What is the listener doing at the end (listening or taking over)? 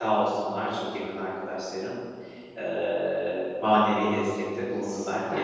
taking over